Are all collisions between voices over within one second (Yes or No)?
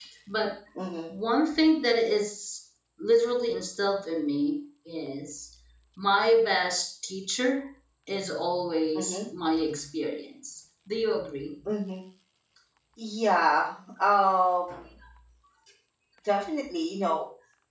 Yes